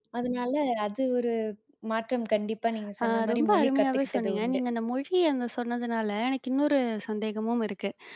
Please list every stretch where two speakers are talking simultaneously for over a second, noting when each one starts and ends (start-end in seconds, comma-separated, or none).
3.0-4.6